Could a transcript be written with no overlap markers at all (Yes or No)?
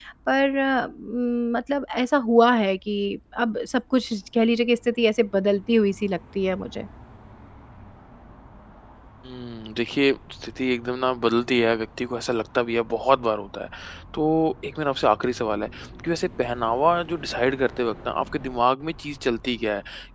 Yes